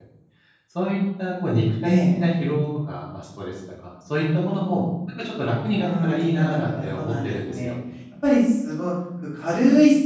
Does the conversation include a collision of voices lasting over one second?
Yes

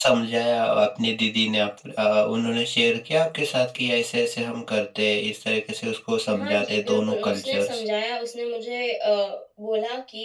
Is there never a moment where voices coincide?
No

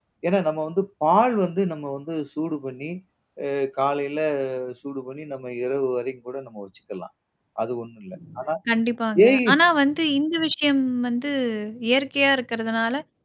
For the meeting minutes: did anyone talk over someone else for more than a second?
No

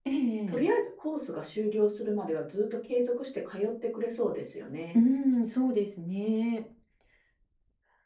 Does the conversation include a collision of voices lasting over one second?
No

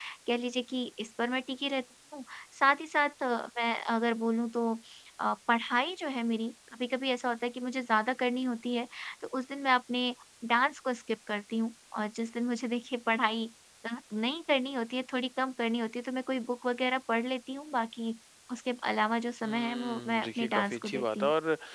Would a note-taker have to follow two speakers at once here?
Yes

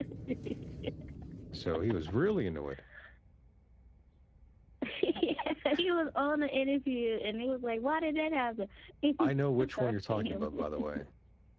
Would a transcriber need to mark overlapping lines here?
Yes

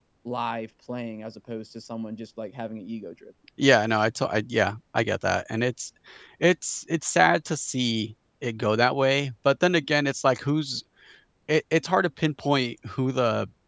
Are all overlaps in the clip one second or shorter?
Yes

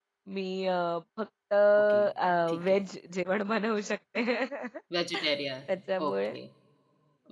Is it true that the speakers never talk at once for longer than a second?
Yes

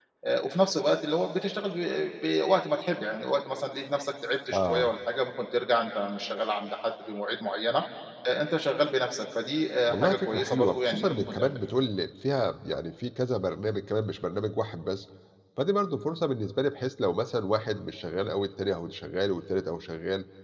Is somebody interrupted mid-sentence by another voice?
Yes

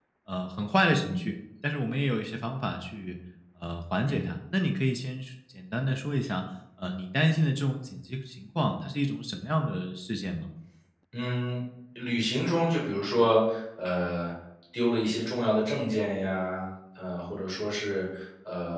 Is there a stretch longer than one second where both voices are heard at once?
No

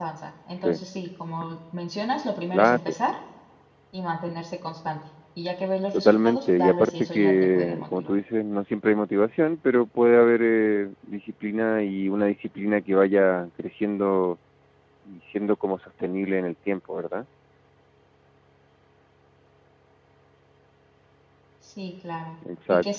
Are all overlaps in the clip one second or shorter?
No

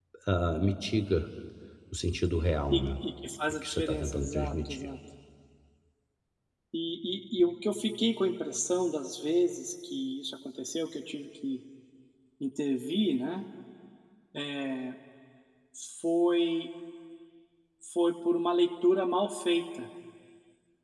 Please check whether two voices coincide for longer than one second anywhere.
Yes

